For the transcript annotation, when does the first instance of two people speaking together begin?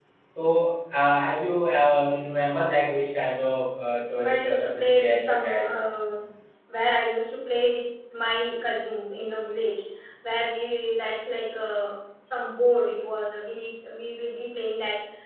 4.2 s

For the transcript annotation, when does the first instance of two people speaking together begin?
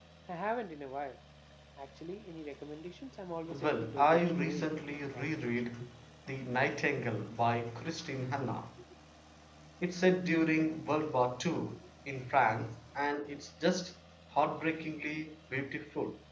3.5 s

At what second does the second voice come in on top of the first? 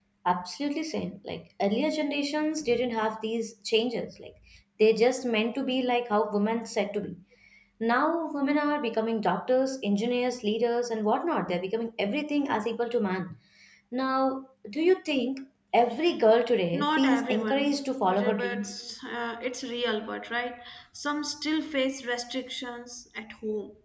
16.7 s

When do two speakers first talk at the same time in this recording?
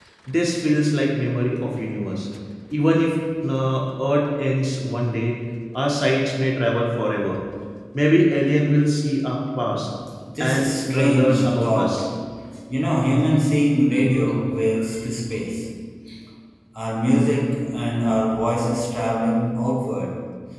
10.4 s

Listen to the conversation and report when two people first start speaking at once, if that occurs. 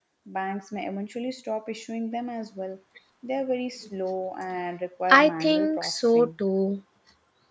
5.1 s

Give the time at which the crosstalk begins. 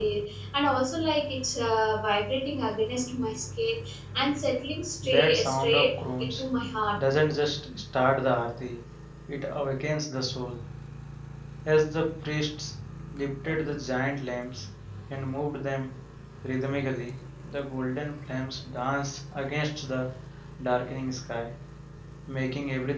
5.0 s

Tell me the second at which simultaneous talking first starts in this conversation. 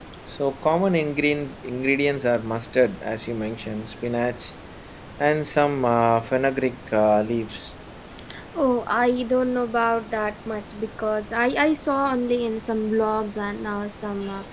none

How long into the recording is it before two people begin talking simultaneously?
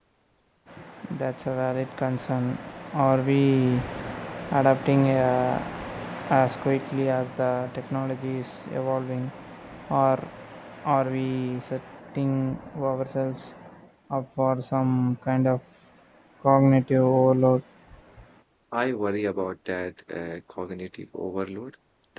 none

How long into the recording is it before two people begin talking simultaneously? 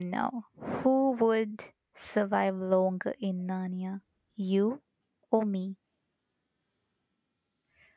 none

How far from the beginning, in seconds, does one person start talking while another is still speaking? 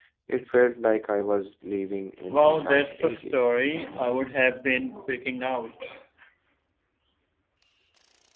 2.3 s

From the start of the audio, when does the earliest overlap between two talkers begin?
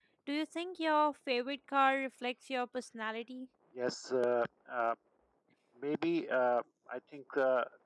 none

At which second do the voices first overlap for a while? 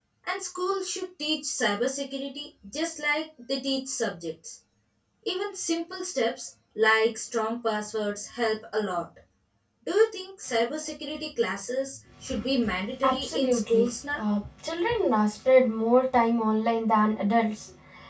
13.0 s

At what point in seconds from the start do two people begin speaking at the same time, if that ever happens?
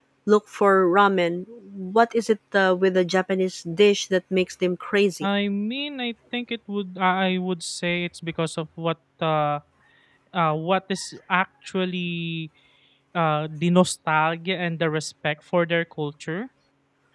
none

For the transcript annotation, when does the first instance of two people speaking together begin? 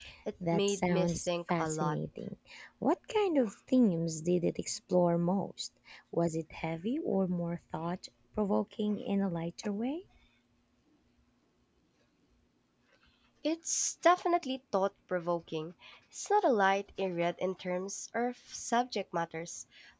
0.5 s

